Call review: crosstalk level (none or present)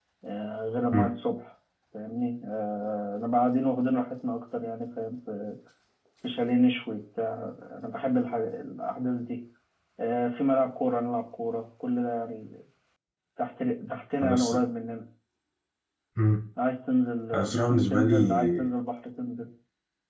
present